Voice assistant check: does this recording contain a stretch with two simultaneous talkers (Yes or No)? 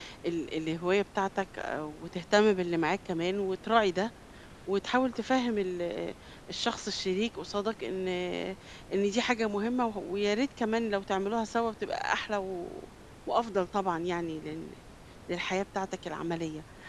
No